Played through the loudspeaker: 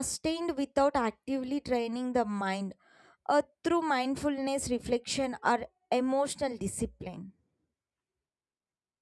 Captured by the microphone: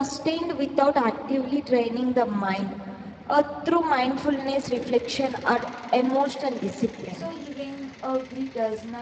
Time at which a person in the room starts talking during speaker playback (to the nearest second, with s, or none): 7 s